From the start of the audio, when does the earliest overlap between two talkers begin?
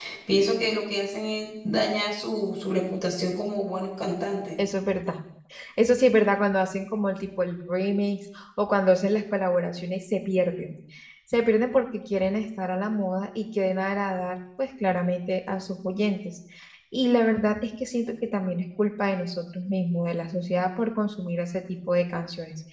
none

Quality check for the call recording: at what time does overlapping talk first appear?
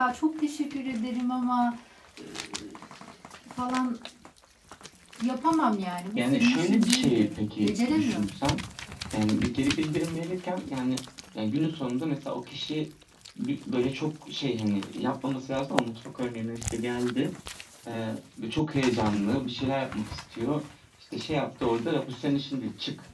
6.2 s

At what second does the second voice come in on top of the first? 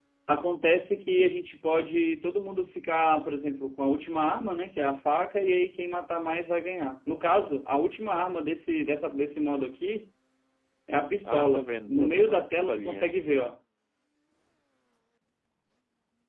11.2 s

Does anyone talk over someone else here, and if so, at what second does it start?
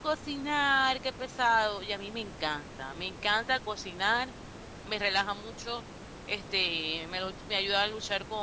none

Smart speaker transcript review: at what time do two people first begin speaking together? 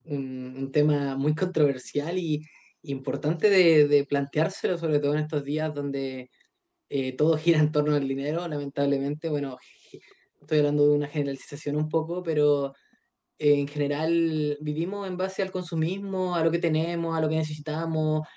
none

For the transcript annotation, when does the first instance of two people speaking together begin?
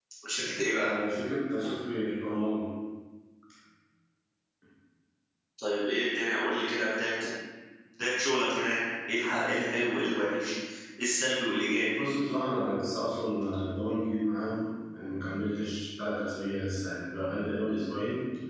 none

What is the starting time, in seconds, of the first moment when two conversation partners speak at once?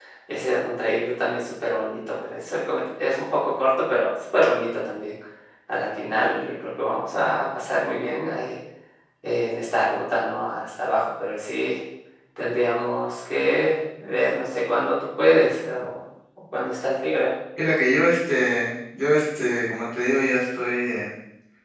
none

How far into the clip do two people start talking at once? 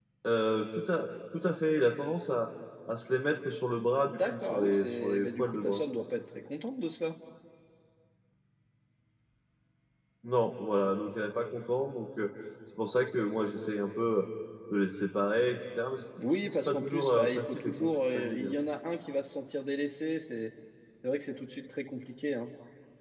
4.3 s

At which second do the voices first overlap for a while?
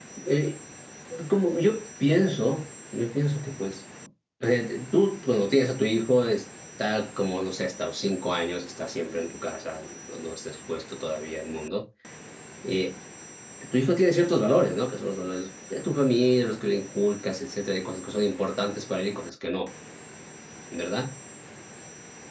none

